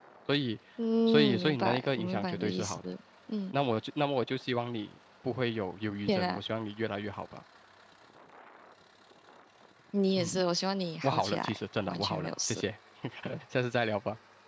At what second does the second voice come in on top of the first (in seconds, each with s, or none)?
1.1 s